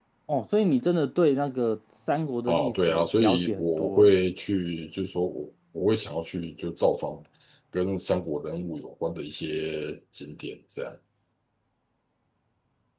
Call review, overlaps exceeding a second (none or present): present